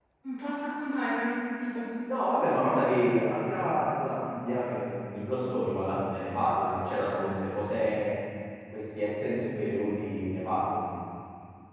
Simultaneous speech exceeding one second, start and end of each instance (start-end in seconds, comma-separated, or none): none